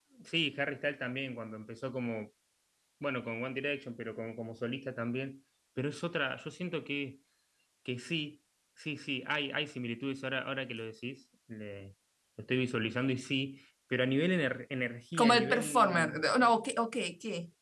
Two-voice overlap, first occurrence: 15.1 s

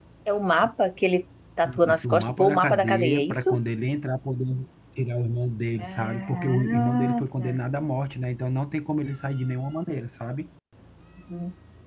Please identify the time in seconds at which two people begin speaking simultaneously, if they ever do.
1.9 s

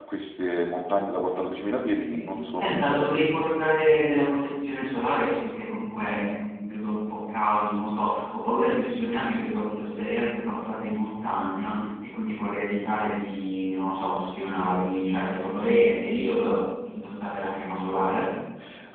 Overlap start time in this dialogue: 2.0 s

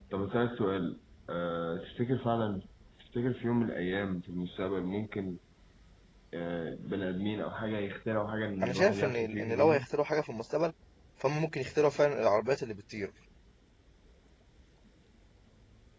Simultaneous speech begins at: 8.6 s

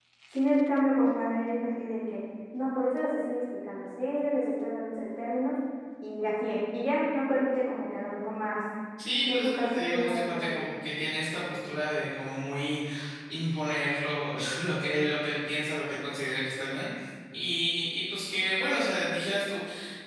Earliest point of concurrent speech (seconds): 9.2 s

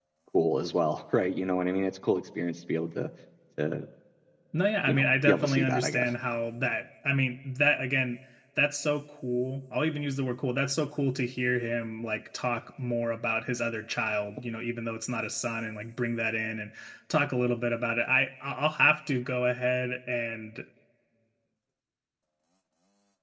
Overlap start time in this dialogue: 4.9 s

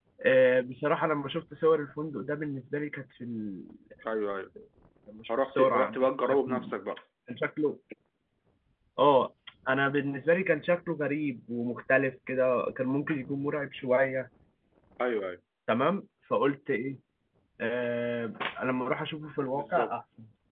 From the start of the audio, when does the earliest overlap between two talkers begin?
5.3 s

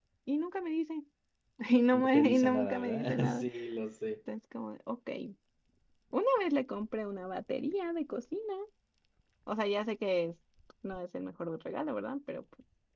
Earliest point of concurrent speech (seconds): 1.9 s

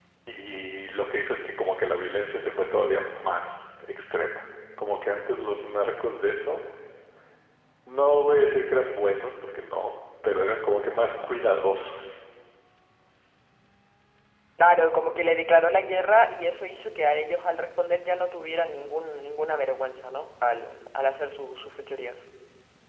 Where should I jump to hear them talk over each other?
none

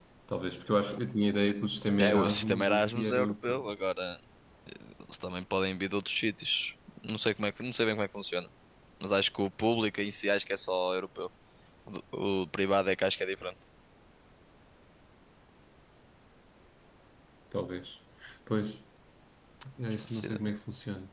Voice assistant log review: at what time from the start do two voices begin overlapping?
2.0 s

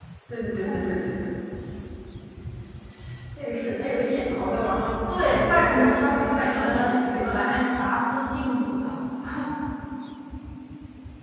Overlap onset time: 5.1 s

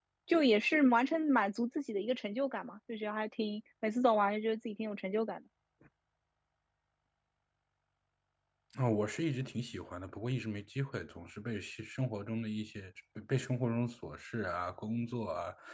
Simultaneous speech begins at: none

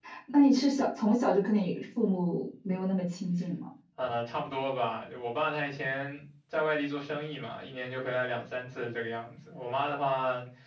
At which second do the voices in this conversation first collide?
none

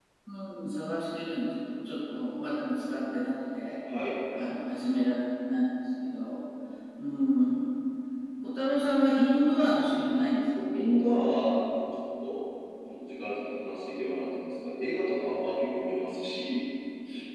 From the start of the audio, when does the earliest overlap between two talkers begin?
none

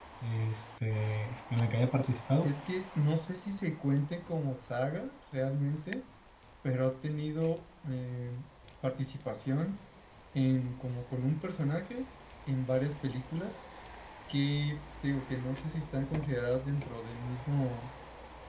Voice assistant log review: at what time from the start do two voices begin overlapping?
none

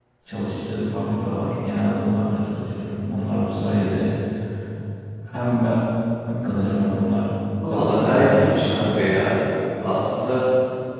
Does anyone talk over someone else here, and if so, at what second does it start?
7.6 s

